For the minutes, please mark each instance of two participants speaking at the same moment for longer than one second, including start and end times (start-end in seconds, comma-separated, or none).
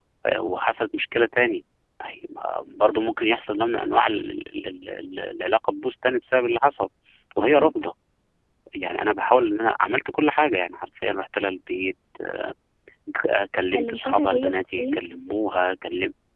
13.7-15.0